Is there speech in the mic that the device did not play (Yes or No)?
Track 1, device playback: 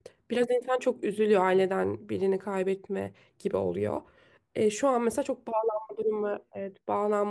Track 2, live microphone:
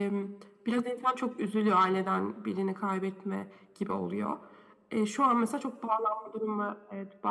No